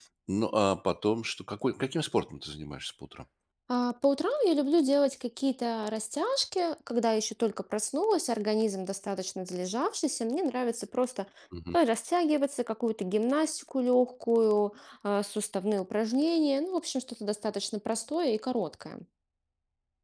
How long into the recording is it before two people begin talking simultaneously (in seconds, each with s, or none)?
none